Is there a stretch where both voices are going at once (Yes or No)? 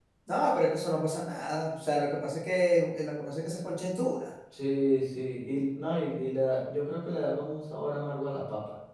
No